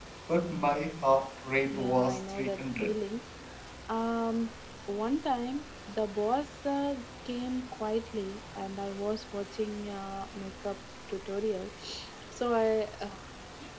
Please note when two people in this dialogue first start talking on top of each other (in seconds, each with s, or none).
1.7 s